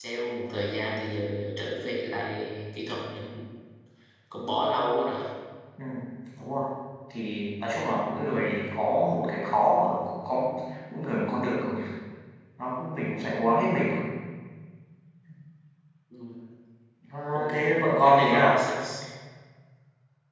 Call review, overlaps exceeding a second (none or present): present